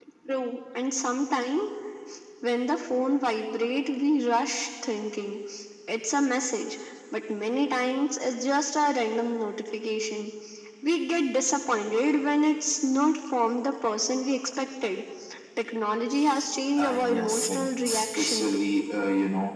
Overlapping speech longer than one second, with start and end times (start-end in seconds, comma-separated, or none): 16.8-18.7